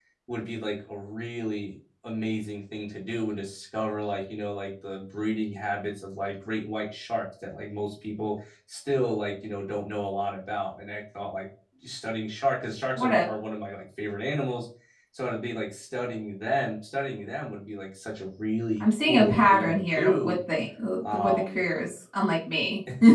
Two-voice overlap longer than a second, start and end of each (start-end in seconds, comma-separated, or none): 18.8-20.4